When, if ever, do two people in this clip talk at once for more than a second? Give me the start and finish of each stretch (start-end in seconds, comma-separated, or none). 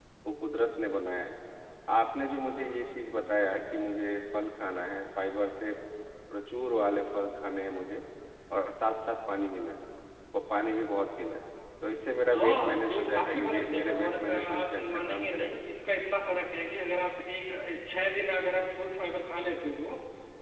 12.3-15.6